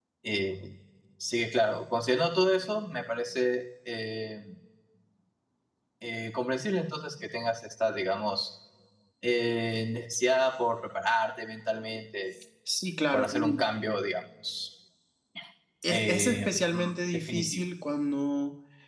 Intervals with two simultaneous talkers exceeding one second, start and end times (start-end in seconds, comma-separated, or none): 15.9-17.6